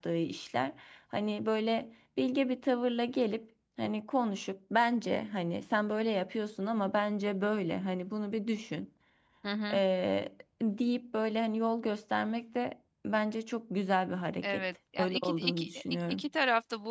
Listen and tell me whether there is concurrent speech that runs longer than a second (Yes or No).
Yes